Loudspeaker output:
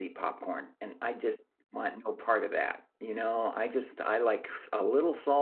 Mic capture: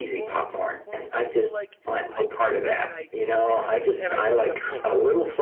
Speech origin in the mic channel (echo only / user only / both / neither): both